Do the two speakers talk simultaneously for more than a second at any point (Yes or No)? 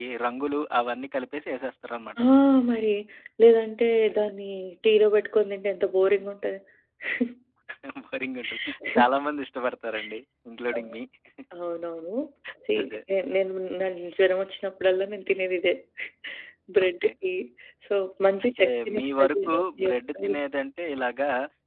Yes